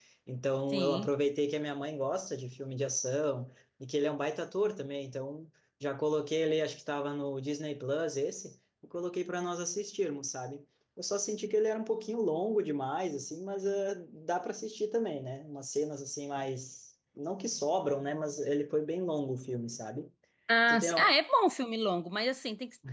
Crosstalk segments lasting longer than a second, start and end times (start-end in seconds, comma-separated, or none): none